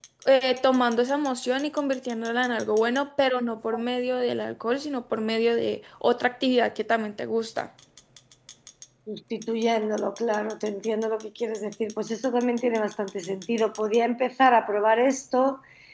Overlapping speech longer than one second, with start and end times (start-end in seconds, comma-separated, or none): none